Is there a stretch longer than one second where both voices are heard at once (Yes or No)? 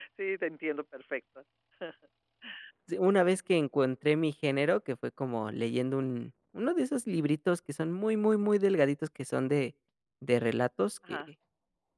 No